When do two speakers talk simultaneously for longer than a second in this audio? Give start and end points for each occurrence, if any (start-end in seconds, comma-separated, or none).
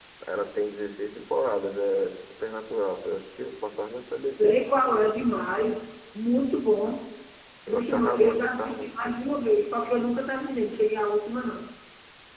7.7-8.9